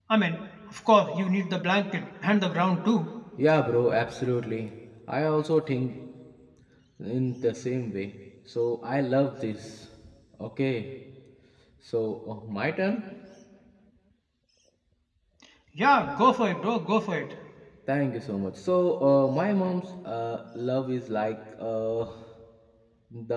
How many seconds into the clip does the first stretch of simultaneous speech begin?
none

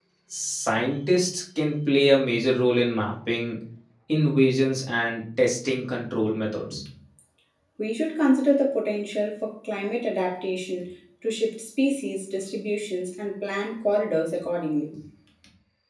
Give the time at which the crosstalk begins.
none

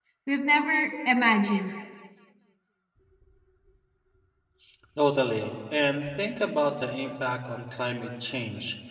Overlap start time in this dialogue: none

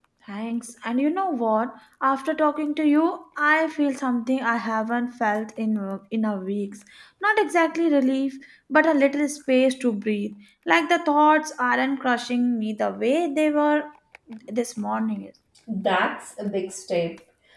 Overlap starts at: none

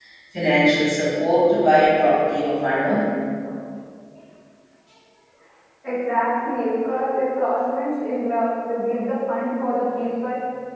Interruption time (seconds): none

